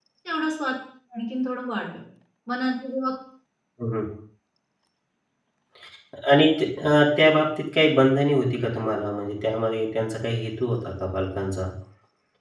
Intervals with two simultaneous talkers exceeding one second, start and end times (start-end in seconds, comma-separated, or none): none